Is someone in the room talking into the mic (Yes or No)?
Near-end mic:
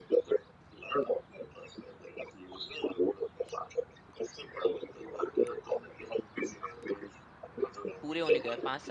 Yes